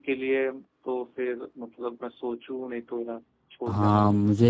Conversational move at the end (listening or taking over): taking over